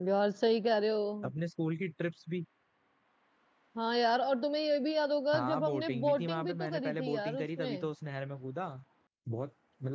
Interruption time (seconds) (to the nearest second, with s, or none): 5 s